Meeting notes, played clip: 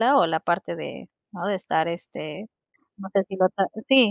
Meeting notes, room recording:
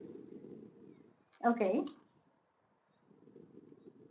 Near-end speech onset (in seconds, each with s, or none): 1.4 s